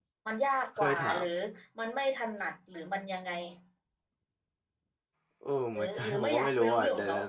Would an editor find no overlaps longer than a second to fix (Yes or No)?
No